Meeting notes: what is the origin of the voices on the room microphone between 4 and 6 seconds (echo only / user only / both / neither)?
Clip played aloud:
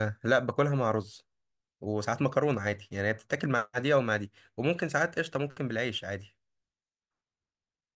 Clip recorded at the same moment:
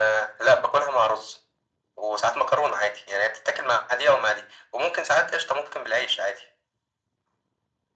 echo only